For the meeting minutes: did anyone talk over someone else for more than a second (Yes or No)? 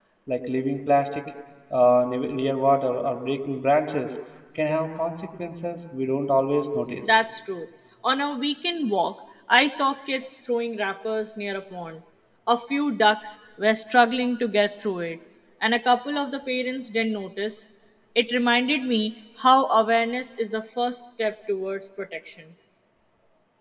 No